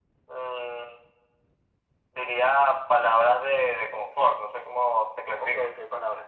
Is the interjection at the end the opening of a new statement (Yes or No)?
Yes